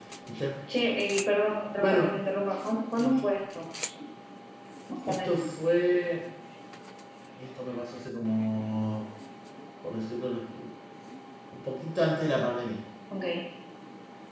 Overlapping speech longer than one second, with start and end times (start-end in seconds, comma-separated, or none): none